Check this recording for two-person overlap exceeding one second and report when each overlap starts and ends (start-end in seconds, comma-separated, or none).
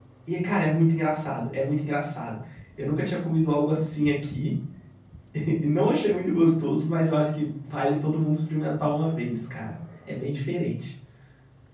none